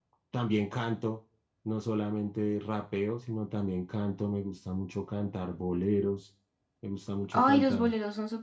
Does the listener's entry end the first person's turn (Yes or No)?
Yes